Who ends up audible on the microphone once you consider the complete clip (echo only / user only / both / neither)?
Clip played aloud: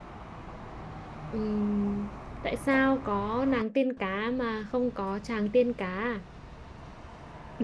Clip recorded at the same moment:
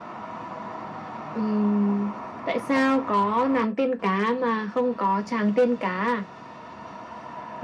echo only